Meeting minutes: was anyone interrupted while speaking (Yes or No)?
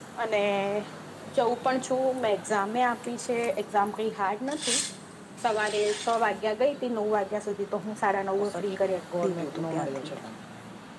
Yes